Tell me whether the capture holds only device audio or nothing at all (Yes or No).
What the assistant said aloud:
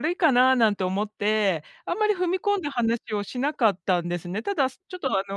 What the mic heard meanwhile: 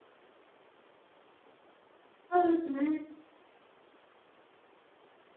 No